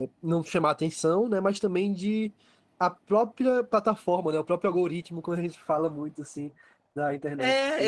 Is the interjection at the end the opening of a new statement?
Yes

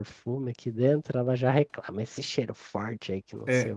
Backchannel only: No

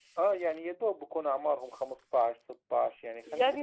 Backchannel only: No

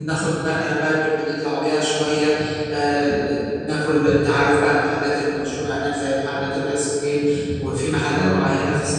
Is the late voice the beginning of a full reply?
No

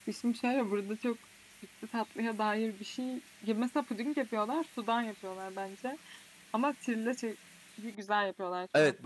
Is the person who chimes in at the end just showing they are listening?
No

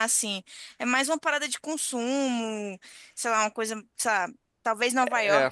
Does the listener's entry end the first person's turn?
No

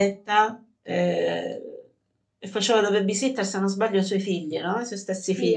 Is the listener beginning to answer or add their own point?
Yes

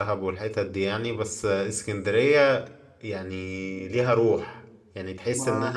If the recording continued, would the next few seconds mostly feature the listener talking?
No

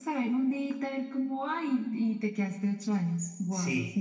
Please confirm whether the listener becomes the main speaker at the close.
Yes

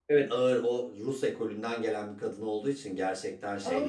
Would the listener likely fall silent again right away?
No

